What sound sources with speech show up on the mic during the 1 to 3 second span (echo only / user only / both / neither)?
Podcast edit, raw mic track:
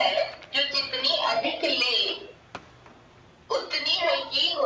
echo only